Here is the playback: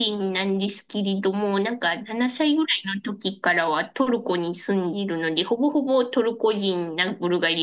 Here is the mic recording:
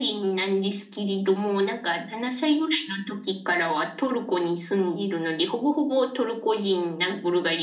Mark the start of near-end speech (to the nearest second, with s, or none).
none